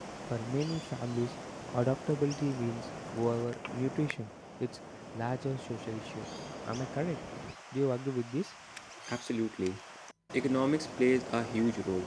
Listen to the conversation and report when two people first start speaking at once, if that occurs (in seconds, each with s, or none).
none